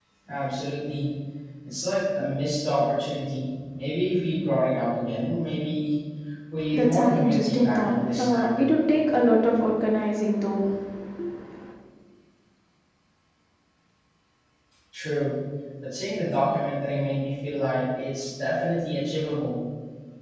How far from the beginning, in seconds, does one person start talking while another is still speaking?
6.7 s

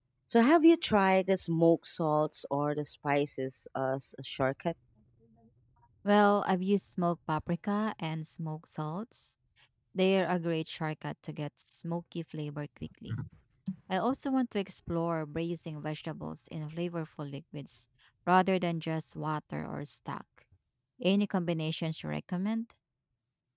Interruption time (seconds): none

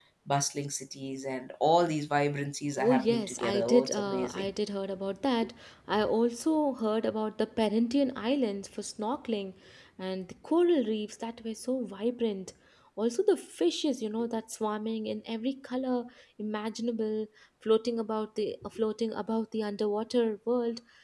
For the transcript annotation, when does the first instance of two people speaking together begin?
2.8 s

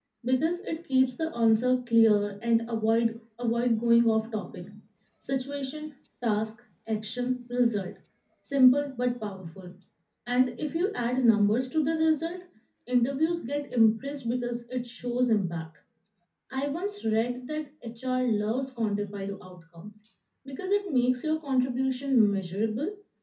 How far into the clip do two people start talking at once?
none

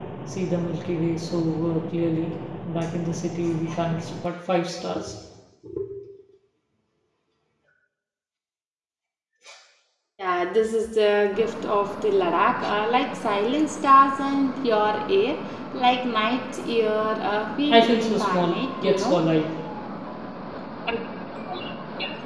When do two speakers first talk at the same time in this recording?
17.7 s

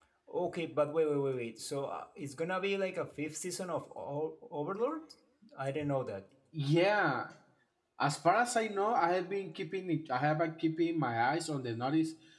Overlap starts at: none

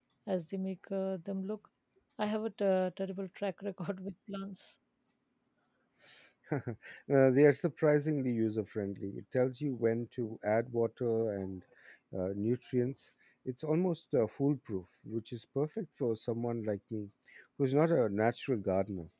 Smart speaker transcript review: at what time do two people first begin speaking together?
none

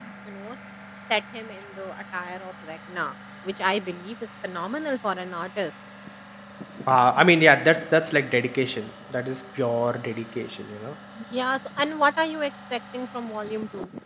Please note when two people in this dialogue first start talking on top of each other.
none

